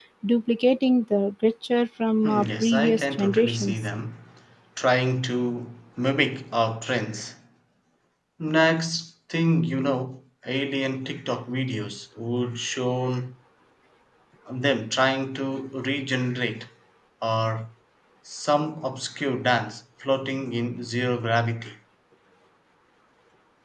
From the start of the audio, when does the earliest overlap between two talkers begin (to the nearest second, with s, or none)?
2 s